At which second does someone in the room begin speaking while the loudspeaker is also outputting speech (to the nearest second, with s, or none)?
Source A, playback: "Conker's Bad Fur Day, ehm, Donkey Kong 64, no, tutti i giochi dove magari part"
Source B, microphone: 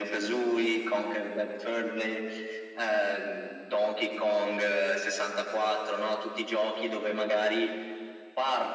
none